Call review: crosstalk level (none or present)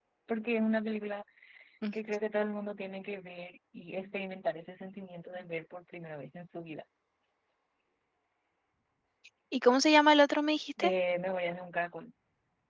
none